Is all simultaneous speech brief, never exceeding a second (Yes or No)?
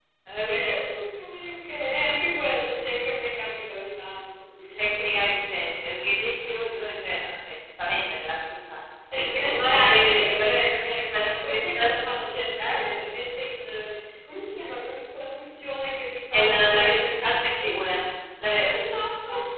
No